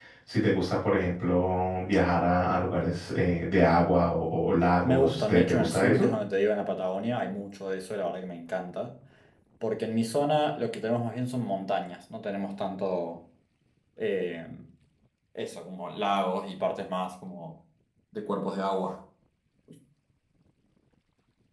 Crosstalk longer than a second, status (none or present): present